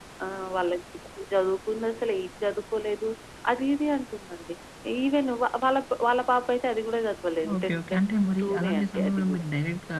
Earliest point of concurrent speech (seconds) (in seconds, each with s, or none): 7.4 s